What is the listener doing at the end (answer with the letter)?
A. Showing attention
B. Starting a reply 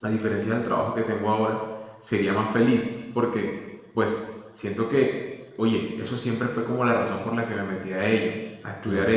A